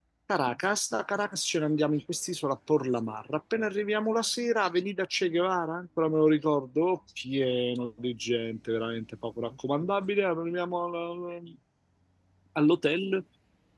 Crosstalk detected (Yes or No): No